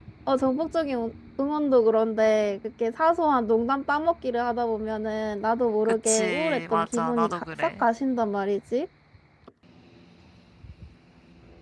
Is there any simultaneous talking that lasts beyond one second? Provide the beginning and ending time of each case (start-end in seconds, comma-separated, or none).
5.8-7.8